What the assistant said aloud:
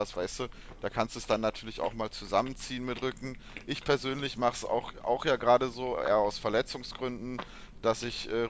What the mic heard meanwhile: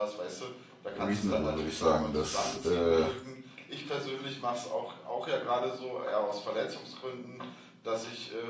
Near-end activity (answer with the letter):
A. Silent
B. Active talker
B